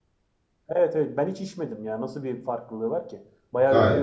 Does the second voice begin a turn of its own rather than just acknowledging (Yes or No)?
Yes